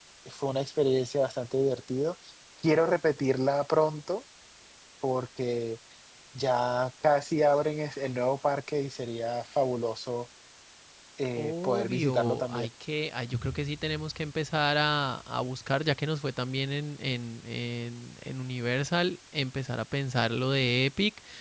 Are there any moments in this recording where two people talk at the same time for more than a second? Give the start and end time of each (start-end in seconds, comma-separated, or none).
11.4-12.7